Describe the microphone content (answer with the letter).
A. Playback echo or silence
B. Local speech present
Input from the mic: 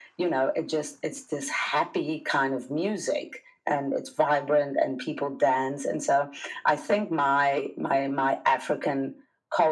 A